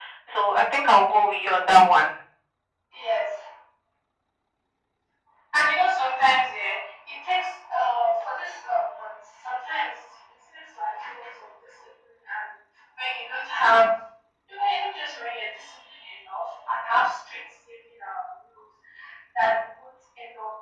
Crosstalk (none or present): none